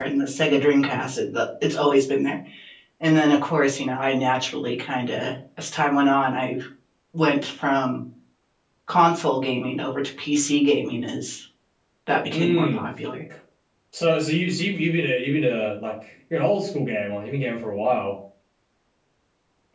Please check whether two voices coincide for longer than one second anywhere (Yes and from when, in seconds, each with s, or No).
No